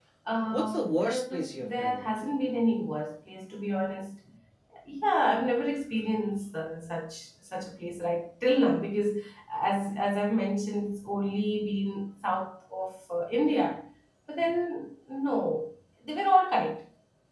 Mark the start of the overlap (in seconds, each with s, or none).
0.5 s